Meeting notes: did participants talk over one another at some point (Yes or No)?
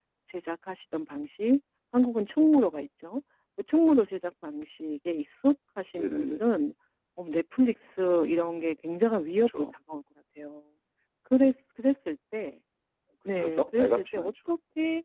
Yes